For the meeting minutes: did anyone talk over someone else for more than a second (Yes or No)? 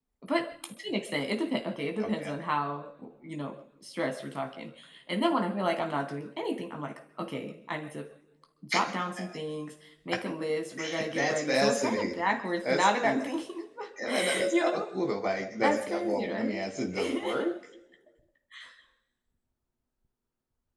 Yes